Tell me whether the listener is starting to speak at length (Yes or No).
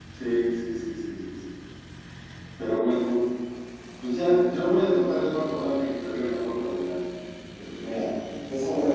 Yes